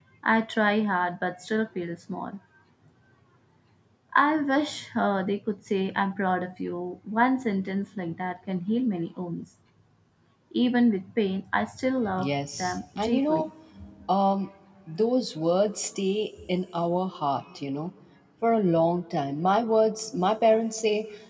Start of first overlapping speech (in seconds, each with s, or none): 12.0 s